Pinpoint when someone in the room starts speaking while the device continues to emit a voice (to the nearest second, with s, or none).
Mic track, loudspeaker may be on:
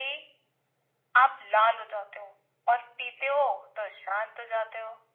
none